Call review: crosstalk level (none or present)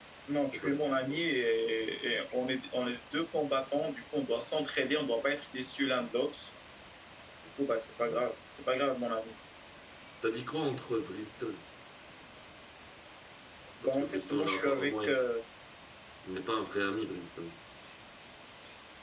present